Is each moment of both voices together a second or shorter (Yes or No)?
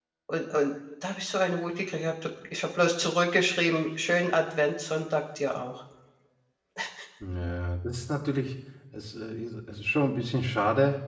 Yes